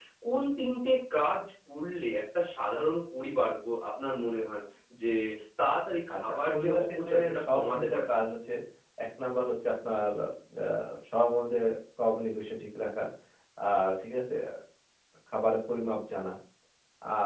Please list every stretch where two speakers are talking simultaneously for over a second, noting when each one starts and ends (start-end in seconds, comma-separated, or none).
6.1-8.1